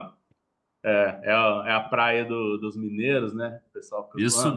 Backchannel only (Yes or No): No